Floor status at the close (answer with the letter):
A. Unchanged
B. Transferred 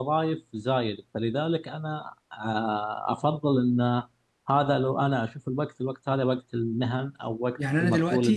B